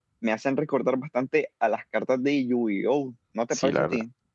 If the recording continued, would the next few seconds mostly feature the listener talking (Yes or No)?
Yes